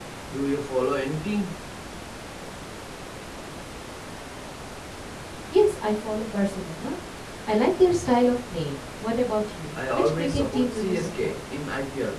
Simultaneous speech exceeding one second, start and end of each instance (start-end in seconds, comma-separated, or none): 9.7-11.3